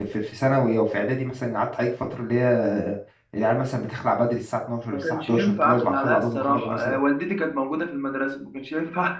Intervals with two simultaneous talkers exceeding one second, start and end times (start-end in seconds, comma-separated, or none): 4.9-7.0